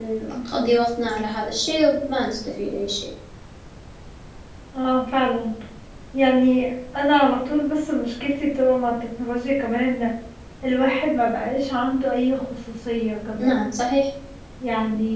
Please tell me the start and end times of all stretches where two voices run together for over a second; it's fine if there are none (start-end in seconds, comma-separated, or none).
none